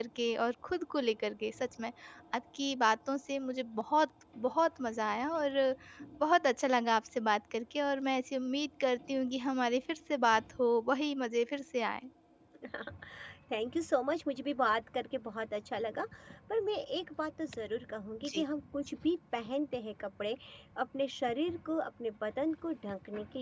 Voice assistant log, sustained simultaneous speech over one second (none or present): none